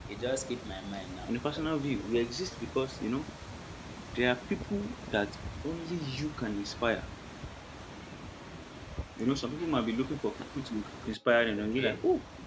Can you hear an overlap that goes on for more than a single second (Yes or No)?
No